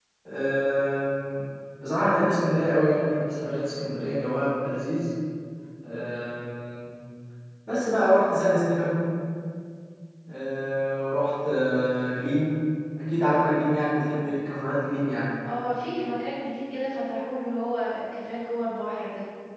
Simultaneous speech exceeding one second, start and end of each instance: none

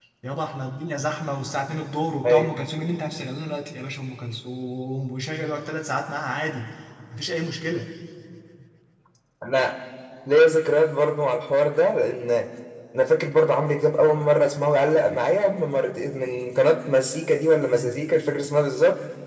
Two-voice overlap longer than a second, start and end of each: none

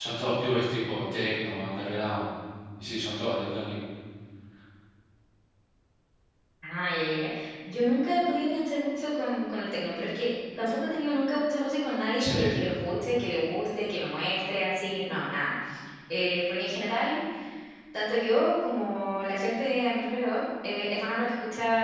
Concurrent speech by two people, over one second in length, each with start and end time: none

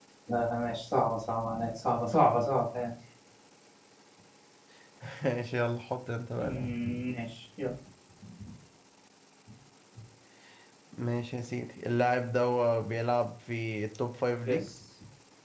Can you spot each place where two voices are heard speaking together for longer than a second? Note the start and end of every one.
none

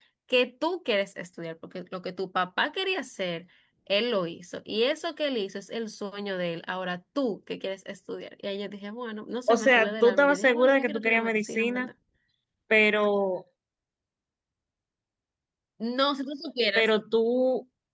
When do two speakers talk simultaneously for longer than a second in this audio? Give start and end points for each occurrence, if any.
9.5-11.9

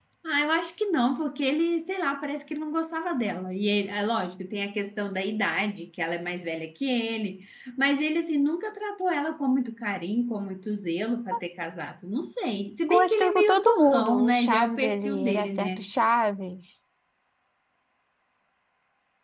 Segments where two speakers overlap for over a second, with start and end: 12.9-15.8

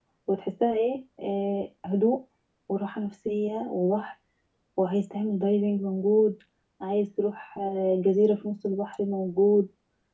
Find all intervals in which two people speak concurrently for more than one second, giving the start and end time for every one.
none

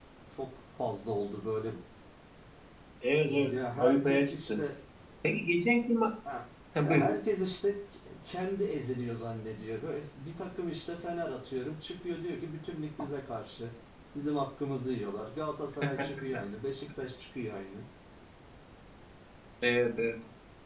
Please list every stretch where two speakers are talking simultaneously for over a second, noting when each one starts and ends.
3.3-4.6

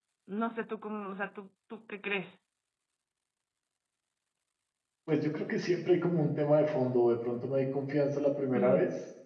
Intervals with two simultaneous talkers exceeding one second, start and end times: none

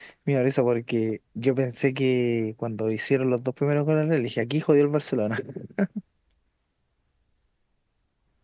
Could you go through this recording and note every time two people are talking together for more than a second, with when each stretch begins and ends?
none

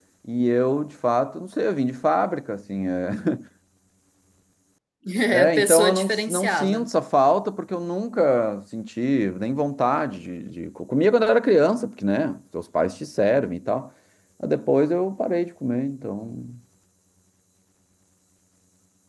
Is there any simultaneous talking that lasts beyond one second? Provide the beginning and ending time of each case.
5.3-6.9

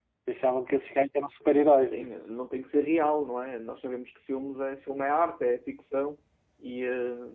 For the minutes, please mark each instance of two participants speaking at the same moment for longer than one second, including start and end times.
none

